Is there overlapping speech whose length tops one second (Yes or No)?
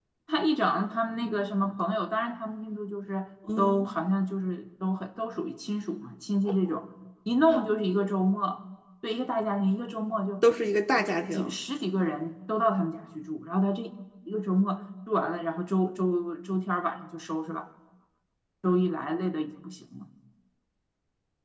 No